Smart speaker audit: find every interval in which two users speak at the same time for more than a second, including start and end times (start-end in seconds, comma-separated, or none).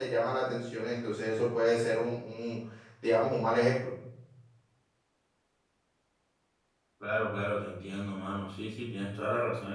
none